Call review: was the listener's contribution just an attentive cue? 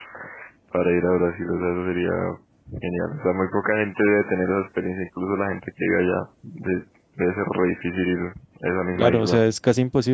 No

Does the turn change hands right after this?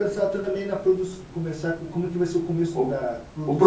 Yes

